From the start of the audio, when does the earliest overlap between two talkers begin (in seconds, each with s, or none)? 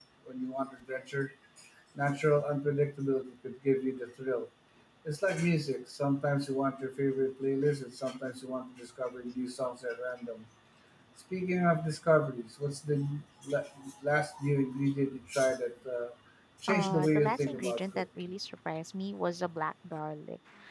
16.7 s